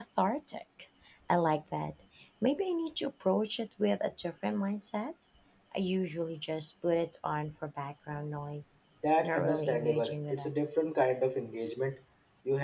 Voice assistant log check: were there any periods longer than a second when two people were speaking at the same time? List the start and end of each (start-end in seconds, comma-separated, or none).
9.2-10.5